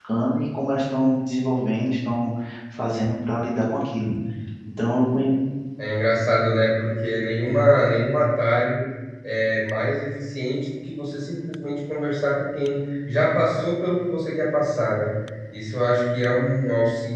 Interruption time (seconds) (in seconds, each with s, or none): none